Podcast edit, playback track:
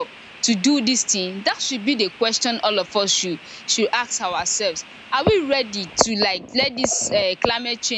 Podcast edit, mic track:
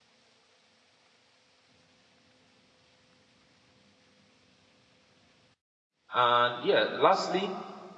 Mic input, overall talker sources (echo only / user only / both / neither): user only